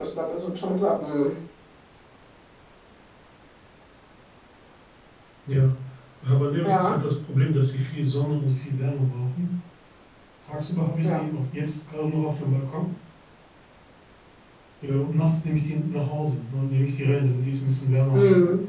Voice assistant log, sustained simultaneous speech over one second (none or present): none